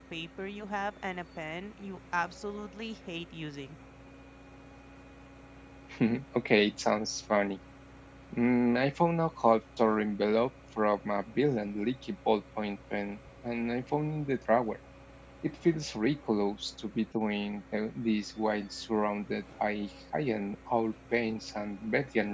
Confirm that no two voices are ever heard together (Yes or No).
Yes